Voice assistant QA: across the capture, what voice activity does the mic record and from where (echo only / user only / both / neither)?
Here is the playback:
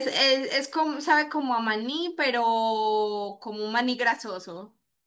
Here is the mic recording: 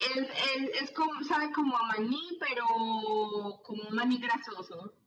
echo only